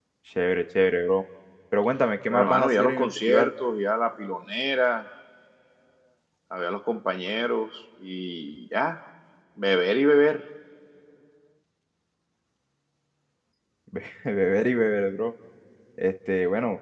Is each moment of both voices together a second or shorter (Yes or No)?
No